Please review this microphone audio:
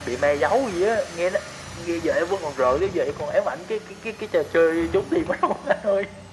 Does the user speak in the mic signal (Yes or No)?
No